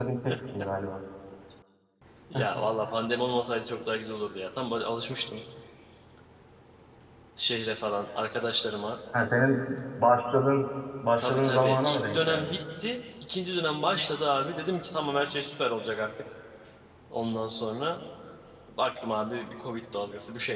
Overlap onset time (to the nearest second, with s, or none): 11 s